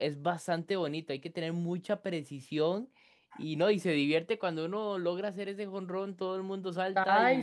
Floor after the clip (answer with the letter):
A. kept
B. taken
B